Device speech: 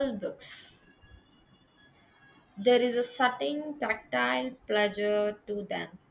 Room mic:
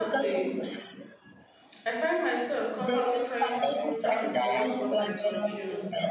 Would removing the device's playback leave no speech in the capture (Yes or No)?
No